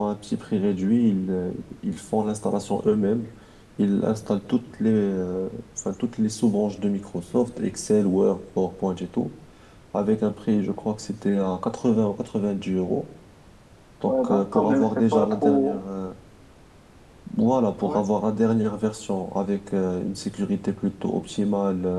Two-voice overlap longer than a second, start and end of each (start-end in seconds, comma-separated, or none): 14.1-15.8